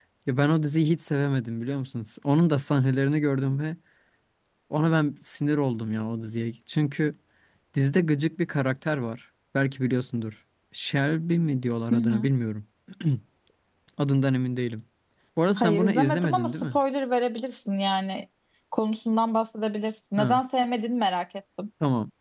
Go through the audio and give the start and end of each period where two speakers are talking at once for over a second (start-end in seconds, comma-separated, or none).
15.6-16.8